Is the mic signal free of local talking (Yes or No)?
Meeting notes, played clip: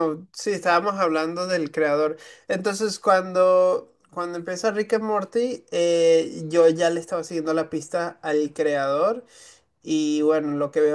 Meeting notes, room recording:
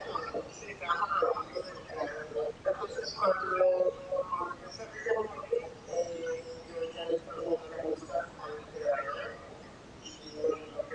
Yes